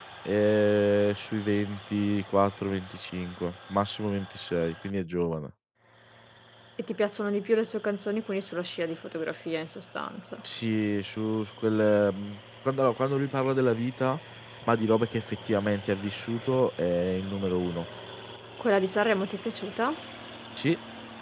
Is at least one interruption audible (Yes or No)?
No